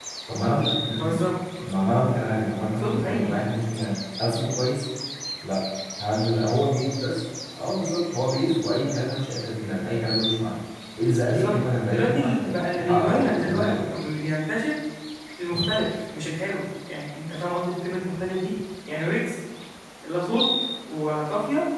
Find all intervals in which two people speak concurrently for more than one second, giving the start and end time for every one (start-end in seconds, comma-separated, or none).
11.3-14.0